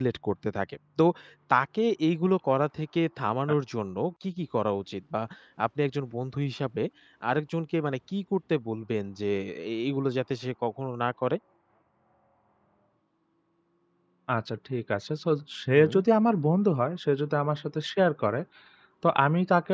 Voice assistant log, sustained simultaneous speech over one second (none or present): none